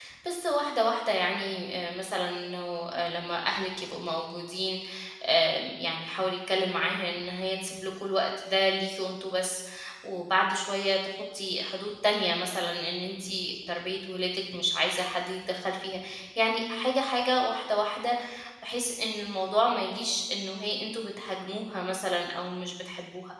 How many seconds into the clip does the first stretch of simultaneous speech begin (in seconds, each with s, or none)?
none